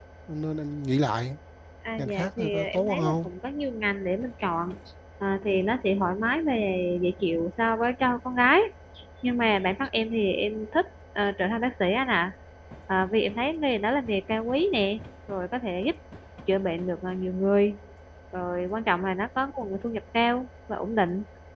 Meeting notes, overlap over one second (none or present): present